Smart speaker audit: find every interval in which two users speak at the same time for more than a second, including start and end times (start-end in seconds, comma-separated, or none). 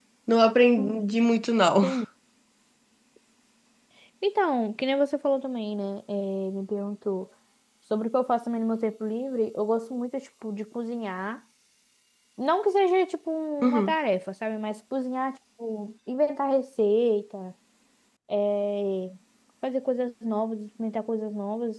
none